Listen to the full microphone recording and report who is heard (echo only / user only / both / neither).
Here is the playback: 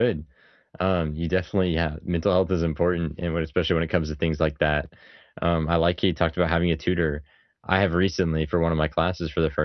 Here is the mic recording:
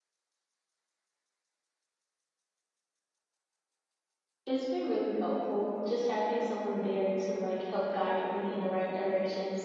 user only